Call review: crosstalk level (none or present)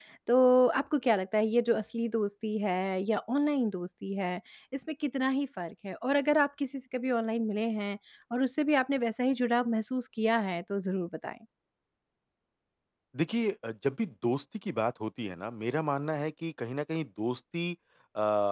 none